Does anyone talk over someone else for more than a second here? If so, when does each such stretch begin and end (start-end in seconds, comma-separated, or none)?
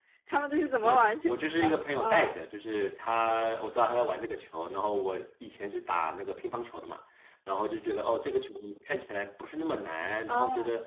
0.8-2.3